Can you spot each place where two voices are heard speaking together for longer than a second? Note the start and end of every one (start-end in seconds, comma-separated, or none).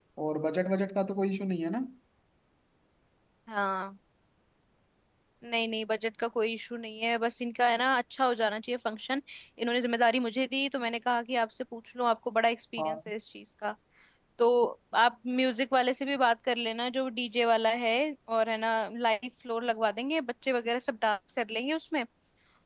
none